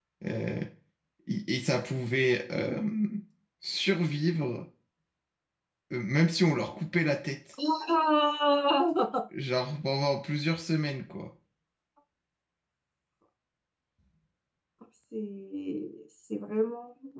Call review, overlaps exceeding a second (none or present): none